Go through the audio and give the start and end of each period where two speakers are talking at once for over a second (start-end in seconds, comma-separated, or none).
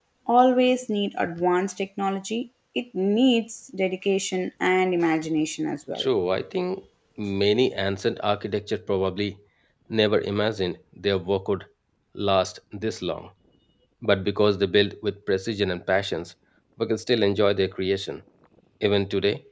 none